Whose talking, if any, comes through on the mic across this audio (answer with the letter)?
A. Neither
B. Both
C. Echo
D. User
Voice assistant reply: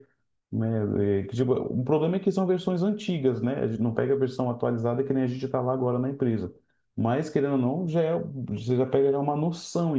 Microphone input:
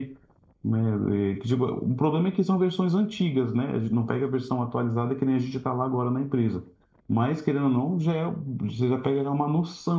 C